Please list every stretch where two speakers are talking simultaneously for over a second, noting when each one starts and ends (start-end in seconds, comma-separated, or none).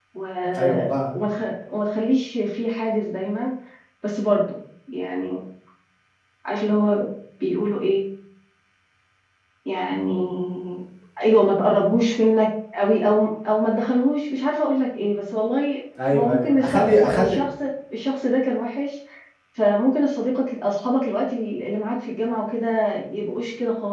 16.1-17.4